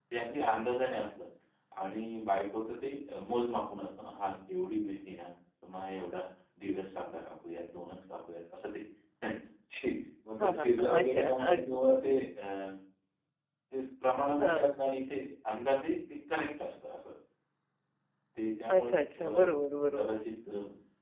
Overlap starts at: 10 s

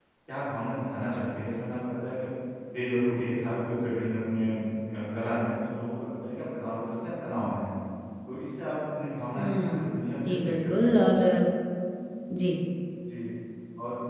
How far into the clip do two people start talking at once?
9 s

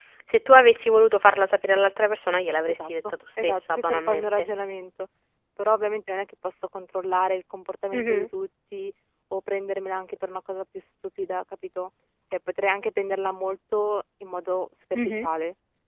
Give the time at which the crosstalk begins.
3 s

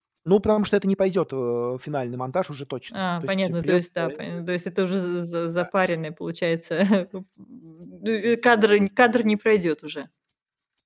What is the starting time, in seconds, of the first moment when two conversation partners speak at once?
3 s

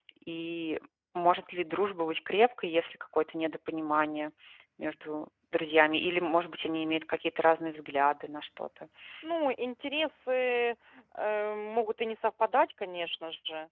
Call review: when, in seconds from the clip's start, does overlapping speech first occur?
none

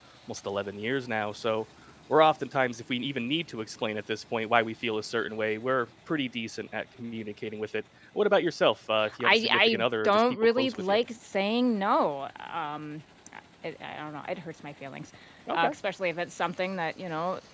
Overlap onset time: 9 s

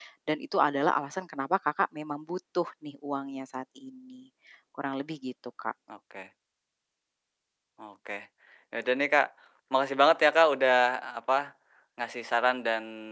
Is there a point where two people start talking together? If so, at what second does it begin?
none

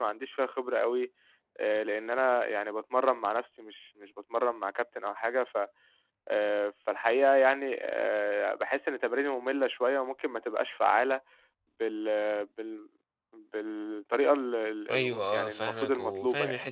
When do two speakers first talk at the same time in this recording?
15 s

